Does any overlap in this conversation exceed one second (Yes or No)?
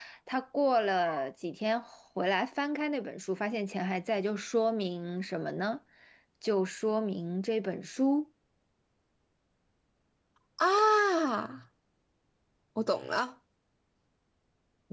No